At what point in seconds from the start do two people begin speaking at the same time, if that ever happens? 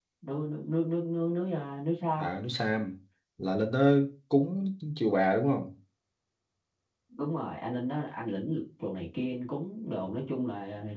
none

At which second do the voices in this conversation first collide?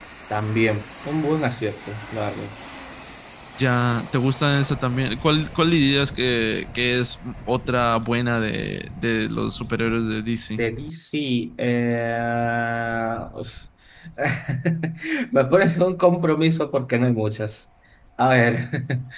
none

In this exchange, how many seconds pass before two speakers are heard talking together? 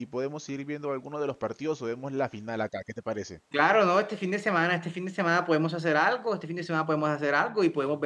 none

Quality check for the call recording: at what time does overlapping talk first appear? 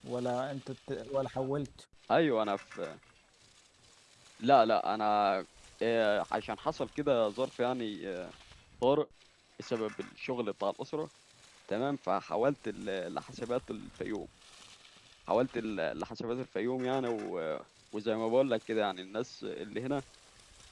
none

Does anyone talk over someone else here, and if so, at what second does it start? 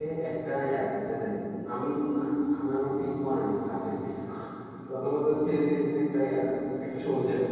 none

